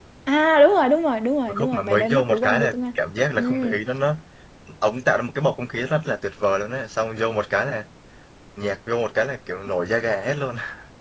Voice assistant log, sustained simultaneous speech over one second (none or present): present